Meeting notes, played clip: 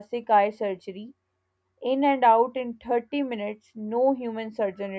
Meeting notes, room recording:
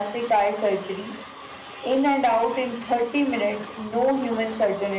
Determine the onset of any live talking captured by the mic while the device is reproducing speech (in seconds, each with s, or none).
none